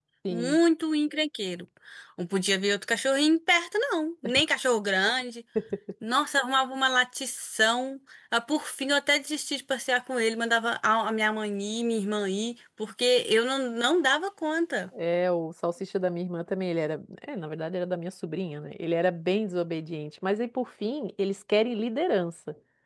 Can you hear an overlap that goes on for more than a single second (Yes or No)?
No